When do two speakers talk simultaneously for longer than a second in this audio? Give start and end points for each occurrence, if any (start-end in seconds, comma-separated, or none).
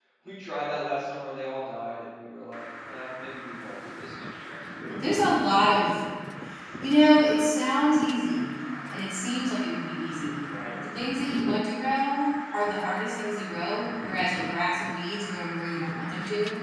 none